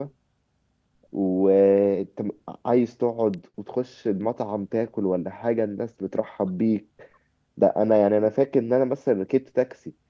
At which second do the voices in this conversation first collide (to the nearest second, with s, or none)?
none